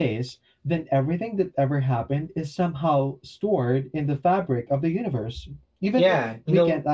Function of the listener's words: taking over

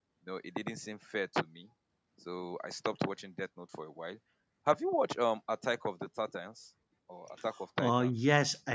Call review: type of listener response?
taking over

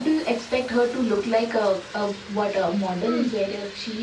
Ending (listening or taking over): listening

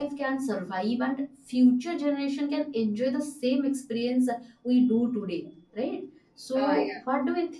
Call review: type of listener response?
listening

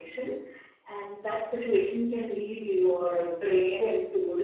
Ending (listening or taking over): taking over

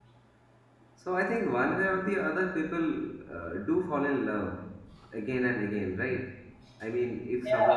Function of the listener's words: taking over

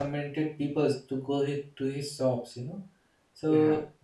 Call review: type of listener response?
listening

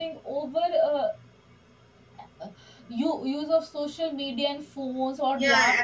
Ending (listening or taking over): taking over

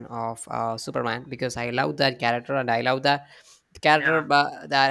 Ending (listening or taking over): listening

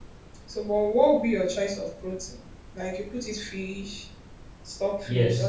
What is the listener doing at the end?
taking over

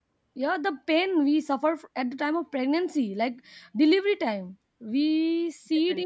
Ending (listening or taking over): listening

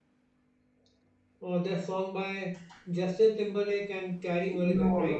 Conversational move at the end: taking over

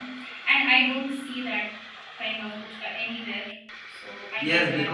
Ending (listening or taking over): taking over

